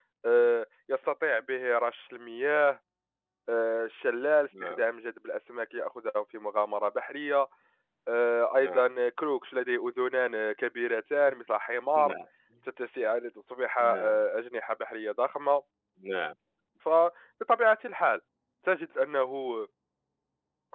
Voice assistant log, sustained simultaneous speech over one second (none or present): none